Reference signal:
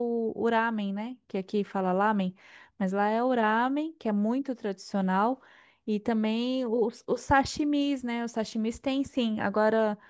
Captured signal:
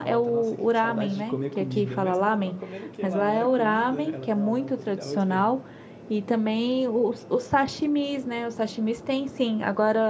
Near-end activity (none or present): present